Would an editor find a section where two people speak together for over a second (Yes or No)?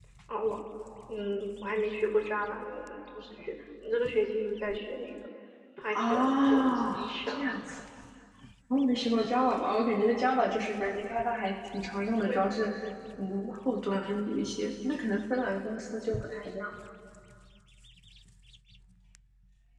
Yes